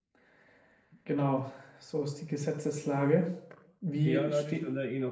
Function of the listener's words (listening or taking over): taking over